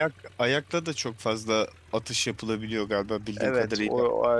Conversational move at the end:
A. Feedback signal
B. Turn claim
B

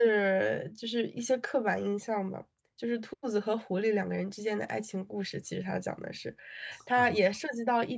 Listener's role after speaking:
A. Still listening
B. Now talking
A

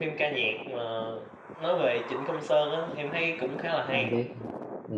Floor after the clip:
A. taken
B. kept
A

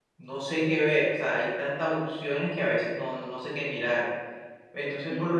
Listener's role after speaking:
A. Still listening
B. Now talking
A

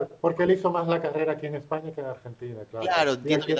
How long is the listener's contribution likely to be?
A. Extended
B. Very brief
A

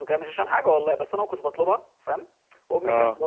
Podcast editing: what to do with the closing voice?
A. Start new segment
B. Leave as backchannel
B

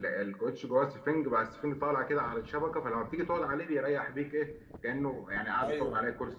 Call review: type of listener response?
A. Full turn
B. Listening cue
A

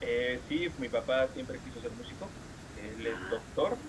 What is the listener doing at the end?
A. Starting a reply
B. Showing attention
B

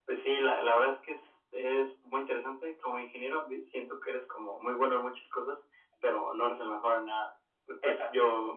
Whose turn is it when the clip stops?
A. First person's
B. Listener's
A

